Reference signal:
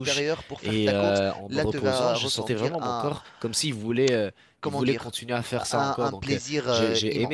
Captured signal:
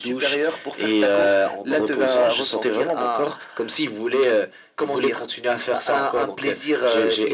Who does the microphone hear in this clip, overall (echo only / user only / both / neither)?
echo only